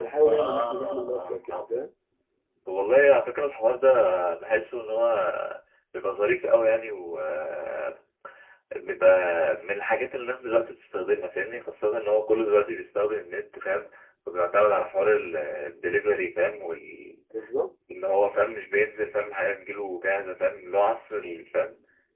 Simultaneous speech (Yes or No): Yes